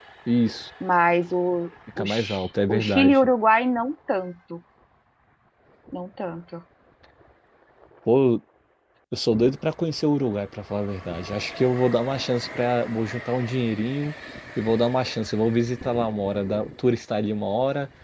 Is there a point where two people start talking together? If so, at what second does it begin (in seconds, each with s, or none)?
1.9 s